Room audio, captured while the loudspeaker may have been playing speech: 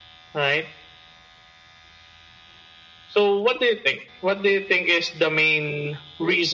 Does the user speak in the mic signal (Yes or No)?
No